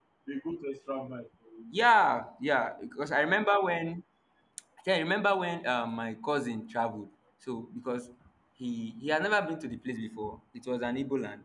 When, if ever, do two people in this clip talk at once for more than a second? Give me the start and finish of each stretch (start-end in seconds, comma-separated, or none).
none